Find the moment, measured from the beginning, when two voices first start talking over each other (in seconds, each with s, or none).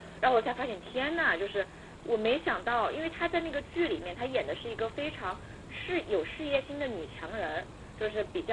none